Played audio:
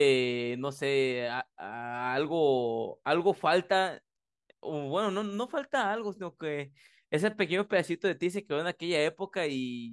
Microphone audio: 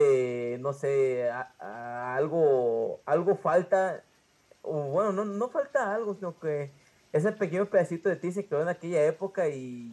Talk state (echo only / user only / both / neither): echo only